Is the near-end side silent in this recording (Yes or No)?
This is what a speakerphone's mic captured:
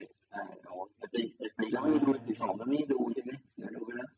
No